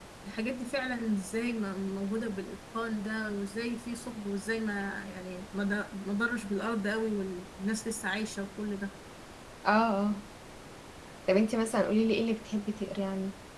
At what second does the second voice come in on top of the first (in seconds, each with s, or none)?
none